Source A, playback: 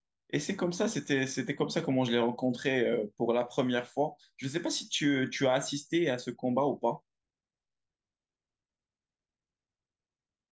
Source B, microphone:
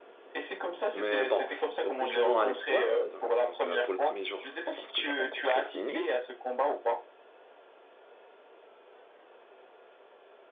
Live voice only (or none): Mais bon, retournons à l'histoire. Donc, donc, euh, pour le premier jour, lorsque j'ai rencontré Slimmy,